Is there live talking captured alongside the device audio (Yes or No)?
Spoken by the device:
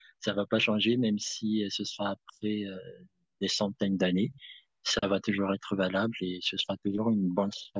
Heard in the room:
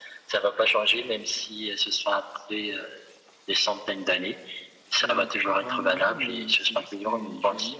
Yes